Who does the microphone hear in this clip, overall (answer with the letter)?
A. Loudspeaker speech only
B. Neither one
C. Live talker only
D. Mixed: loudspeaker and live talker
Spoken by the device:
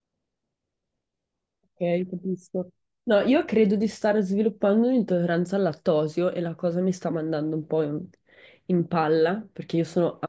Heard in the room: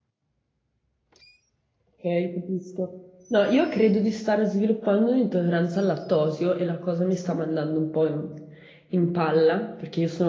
A